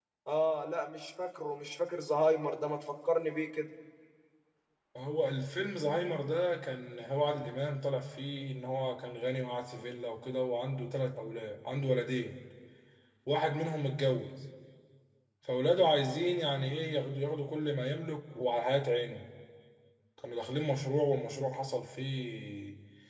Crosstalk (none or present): none